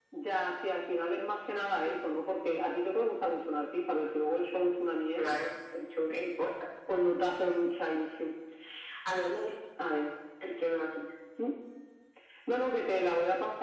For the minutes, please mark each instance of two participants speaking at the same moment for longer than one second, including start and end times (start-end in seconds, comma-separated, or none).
none